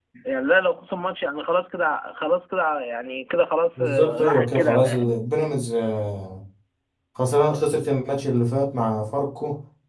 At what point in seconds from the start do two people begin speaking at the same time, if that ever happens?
3.8 s

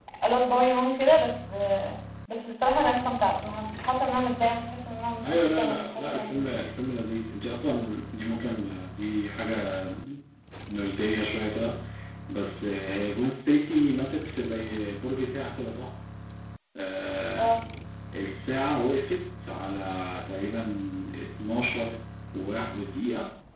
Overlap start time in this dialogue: 5.2 s

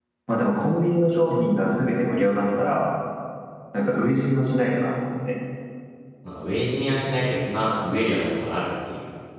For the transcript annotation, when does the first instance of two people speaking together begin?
none

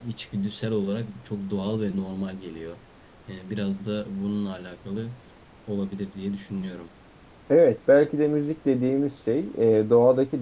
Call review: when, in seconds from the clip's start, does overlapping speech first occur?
none

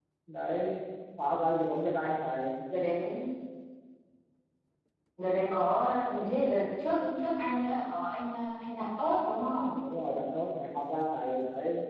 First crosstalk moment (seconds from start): none

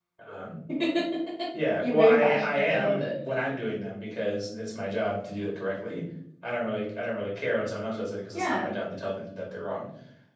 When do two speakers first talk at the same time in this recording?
1.8 s

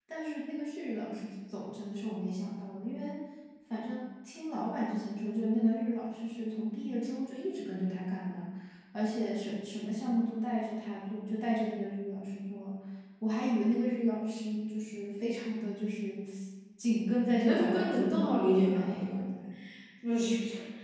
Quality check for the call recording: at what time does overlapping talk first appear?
17.2 s

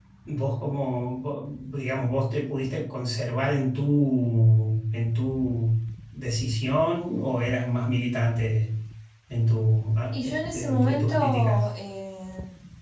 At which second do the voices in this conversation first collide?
10.1 s

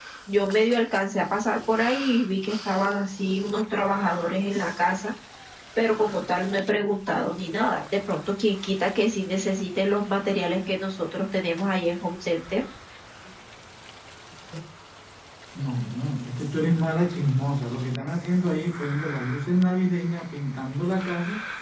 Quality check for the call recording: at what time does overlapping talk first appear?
none

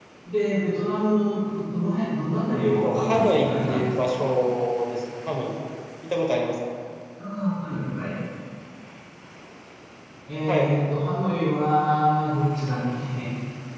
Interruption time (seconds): 2.8 s

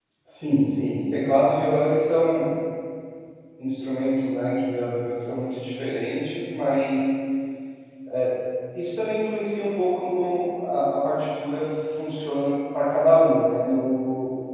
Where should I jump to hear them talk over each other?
none

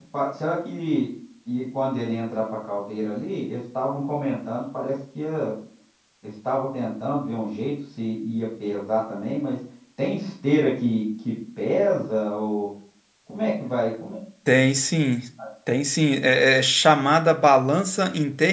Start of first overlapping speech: none

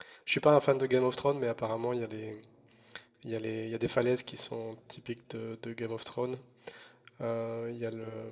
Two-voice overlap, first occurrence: none

